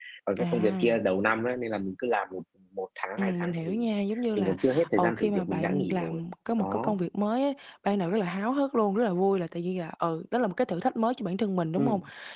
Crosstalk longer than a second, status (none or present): present